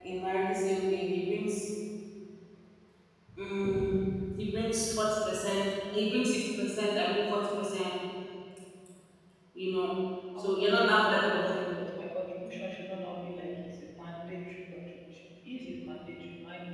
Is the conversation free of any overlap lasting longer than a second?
No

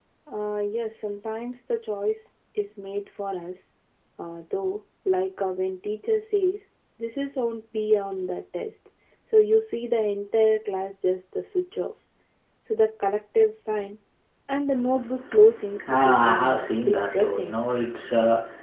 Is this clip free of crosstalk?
No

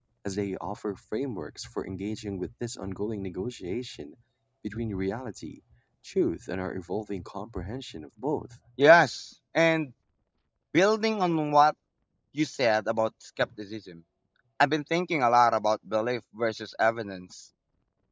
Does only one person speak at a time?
Yes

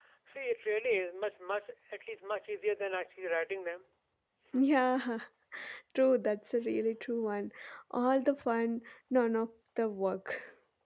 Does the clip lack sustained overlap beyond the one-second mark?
Yes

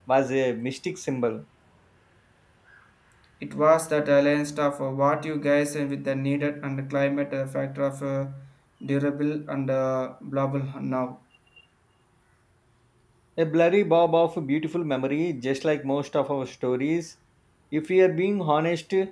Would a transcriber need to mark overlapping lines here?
No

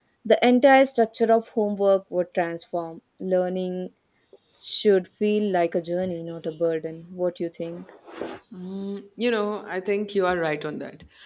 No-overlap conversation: Yes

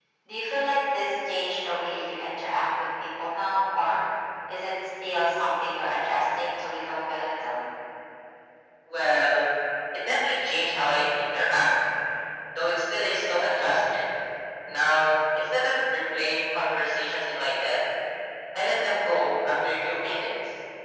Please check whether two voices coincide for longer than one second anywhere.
No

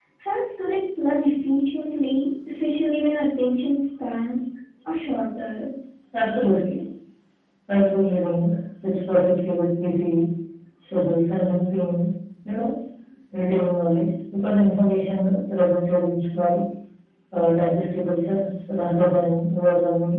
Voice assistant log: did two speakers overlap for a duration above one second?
No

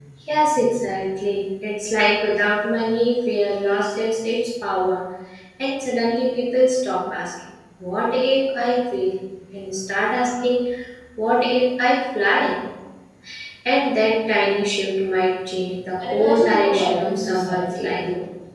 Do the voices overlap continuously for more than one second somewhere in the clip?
Yes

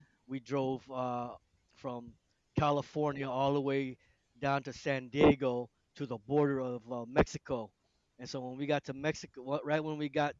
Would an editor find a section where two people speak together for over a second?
No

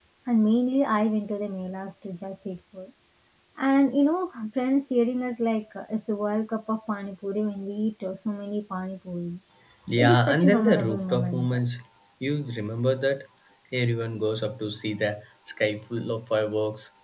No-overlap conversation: No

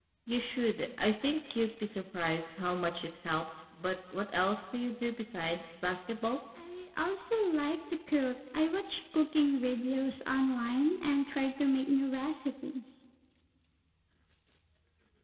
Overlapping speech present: No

